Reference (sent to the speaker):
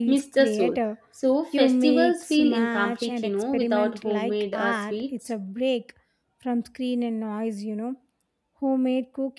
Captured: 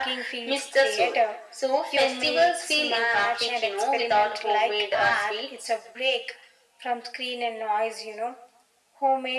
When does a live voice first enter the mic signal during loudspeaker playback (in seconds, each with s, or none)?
none